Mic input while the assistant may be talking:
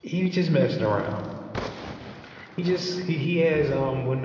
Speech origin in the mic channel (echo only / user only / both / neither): user only